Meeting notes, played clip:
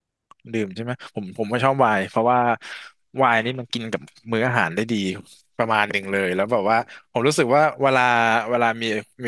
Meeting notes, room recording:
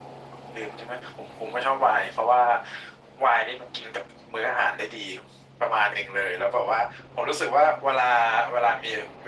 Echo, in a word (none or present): present